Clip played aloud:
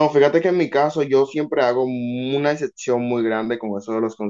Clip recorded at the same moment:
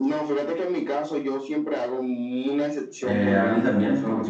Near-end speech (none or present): present